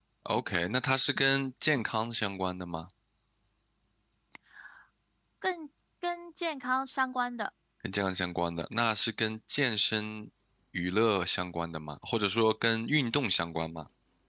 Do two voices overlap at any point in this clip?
No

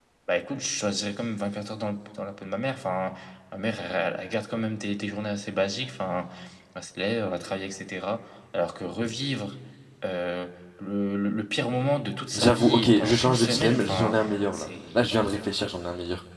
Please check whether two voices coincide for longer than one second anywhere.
Yes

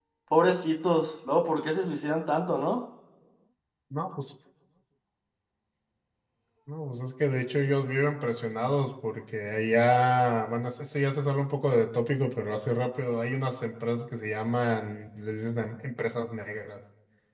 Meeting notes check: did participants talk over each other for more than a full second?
No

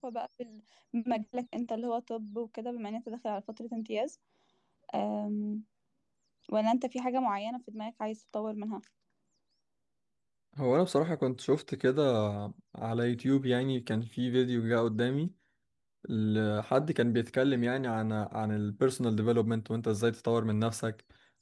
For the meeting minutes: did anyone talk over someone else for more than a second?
No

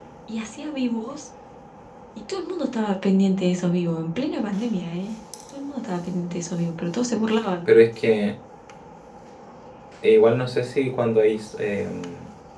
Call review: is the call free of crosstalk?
Yes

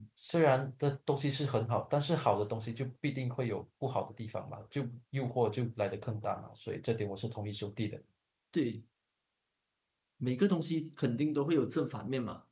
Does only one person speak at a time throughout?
Yes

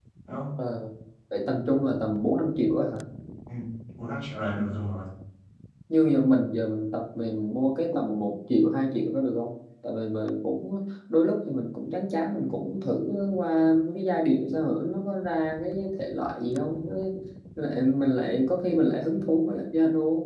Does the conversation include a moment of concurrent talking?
No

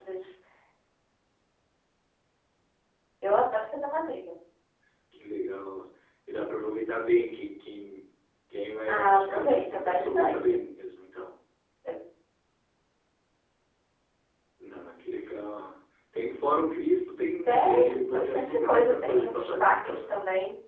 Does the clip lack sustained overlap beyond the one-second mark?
No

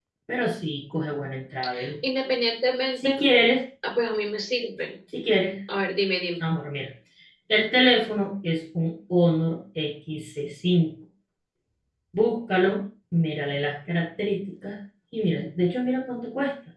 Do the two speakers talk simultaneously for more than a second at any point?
No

